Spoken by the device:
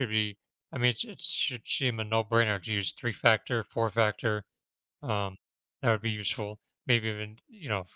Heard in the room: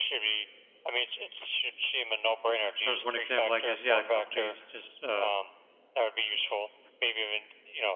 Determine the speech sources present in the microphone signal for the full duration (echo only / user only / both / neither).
both